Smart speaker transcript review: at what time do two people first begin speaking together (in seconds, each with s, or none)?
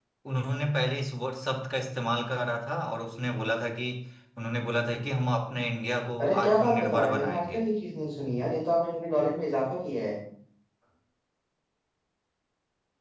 6.2 s